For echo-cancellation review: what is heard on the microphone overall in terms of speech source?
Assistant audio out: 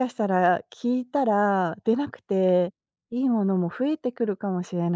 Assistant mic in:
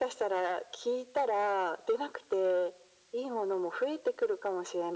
echo only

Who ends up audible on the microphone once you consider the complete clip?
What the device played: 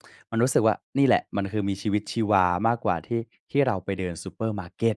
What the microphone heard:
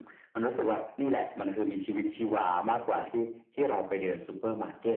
echo only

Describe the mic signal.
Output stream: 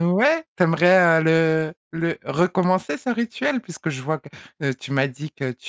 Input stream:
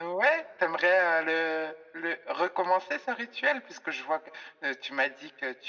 echo only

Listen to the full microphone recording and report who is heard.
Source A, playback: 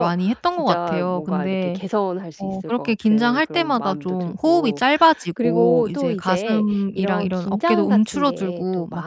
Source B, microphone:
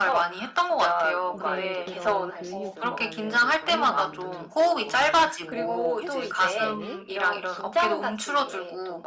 both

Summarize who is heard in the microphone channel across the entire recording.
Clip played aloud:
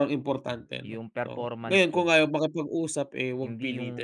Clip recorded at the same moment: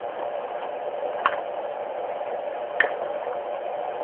neither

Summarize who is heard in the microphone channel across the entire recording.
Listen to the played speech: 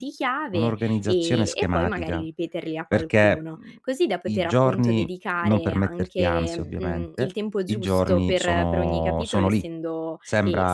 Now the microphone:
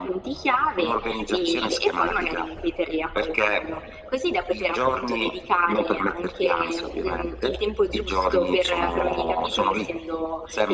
echo only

